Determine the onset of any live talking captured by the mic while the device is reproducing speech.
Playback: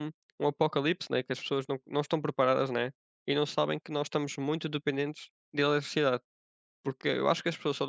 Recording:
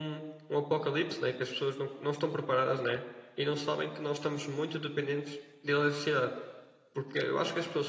none

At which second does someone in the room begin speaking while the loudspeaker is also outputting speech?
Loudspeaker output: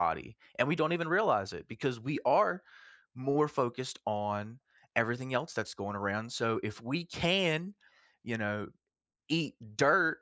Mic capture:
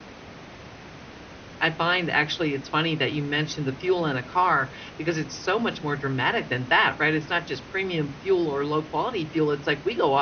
1.6 s

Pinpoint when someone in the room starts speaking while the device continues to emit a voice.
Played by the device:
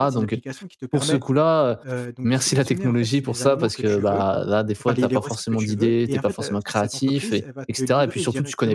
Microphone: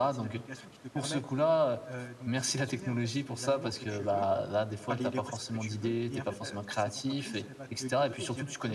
none

